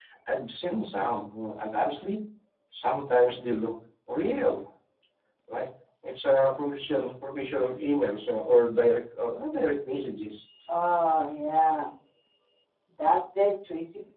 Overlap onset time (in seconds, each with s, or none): none